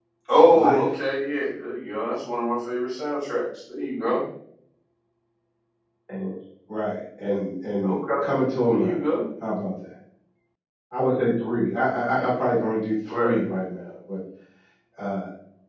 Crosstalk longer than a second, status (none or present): none